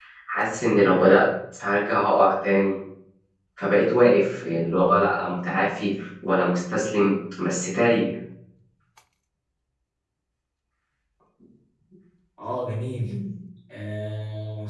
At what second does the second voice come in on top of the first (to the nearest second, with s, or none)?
none